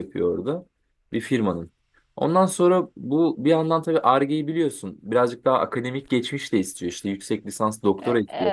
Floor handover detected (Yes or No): No